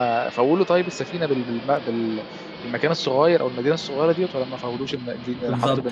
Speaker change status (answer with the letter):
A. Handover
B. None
A